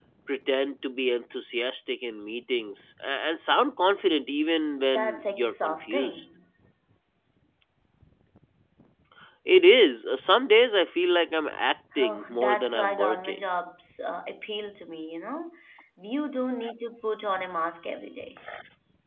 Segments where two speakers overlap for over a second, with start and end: 4.9-6.2, 12.0-13.4

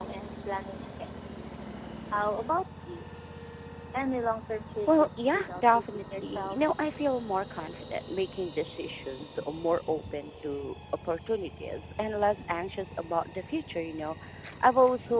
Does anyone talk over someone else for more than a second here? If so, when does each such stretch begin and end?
4.9-6.6

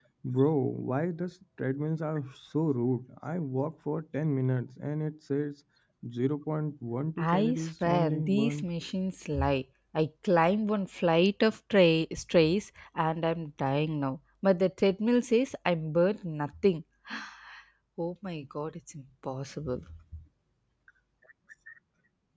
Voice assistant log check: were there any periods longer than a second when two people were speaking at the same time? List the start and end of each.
7.2-8.7

